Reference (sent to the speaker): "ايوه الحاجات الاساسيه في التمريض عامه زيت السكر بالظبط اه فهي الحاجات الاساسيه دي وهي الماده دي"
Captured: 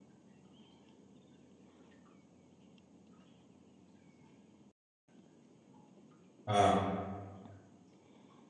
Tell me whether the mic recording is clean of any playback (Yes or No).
Yes